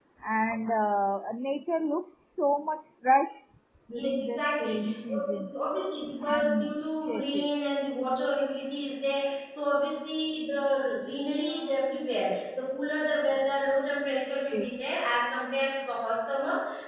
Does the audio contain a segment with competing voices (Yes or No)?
Yes